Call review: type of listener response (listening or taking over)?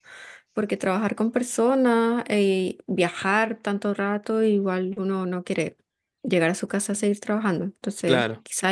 listening